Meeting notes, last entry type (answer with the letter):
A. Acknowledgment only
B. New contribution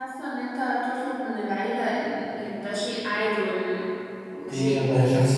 B